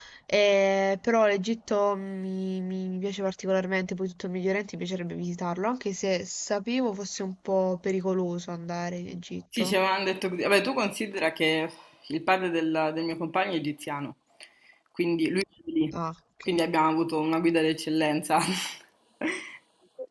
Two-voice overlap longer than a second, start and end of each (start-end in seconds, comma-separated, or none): none